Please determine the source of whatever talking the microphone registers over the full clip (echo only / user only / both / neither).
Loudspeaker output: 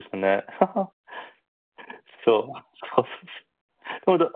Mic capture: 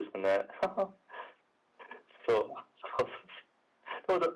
echo only